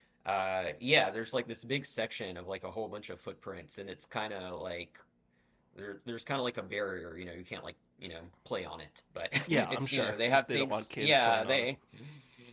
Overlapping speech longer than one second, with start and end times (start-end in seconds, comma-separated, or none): 9.5-11.7